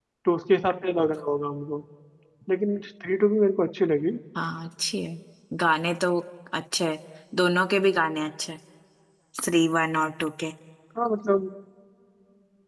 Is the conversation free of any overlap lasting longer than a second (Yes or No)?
Yes